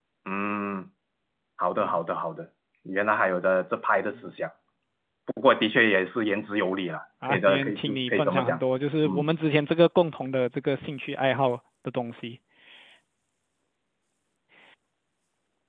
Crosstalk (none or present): present